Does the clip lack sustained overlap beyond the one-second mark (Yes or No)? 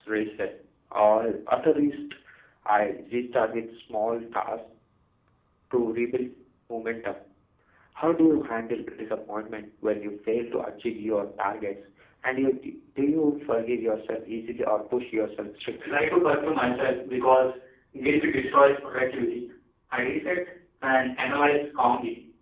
Yes